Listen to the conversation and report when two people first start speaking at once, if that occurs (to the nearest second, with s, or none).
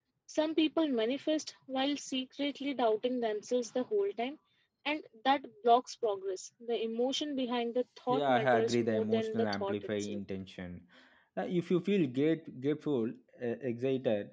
8 s